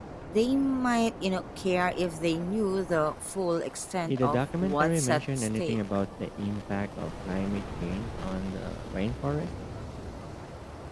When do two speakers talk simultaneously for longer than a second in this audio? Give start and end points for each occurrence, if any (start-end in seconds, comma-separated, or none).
4.1-5.8